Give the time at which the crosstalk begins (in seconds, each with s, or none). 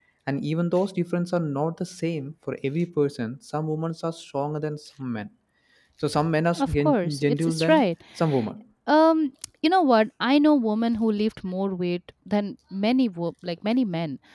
6.6 s